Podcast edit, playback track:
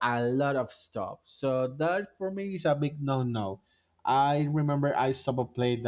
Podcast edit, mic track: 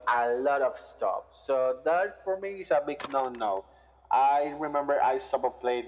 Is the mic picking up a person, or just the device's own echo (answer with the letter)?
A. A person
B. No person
B